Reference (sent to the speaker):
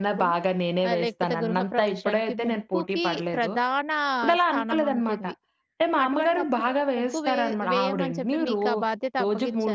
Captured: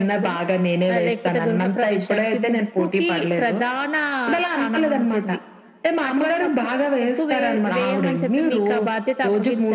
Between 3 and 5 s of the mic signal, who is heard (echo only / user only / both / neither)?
echo only